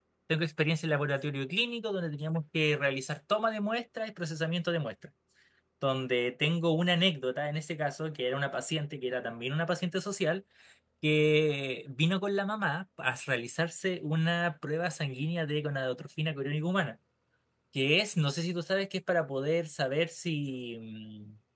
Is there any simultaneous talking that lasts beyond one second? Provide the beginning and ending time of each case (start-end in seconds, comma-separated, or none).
none